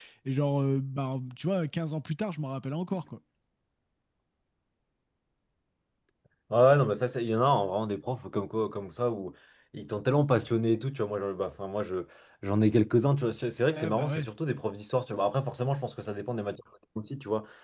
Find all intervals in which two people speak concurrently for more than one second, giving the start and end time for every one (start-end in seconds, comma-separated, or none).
none